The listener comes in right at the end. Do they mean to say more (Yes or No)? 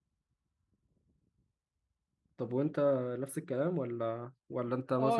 Yes